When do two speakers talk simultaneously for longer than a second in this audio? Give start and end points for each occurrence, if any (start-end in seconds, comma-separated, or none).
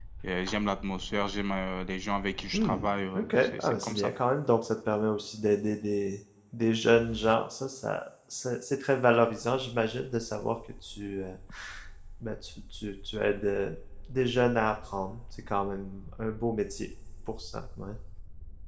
2.5-4.1